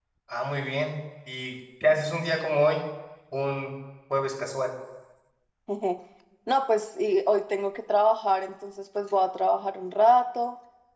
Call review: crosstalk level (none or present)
none